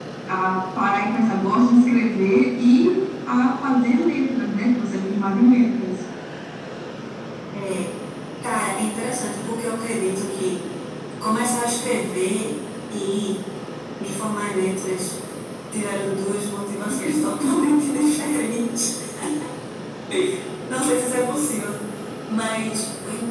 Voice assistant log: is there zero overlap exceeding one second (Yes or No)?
Yes